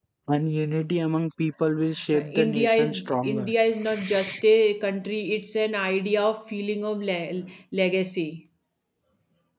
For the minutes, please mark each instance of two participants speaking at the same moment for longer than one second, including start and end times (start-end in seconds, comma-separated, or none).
2.1-3.5